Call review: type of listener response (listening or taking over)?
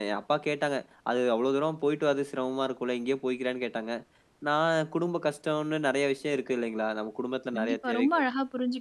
taking over